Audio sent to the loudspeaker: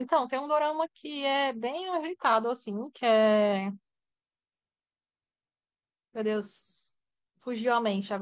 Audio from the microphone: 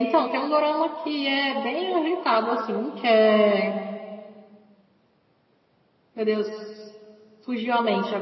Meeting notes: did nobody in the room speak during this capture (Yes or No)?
Yes